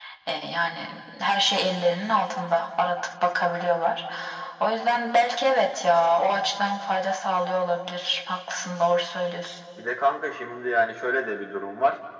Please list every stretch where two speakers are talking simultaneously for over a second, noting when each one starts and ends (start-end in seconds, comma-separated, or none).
none